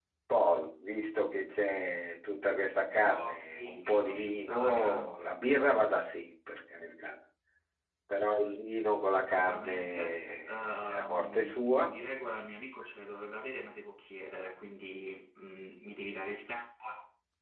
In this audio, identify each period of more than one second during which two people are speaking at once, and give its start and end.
3.2-5.1, 9.3-11.9

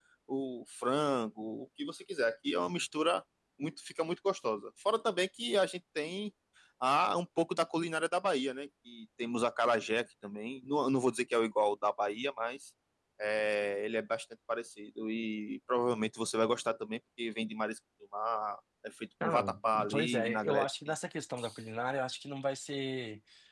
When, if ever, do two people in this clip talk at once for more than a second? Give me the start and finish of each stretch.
19.2-21.0

